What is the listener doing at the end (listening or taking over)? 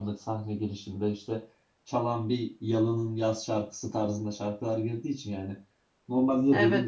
listening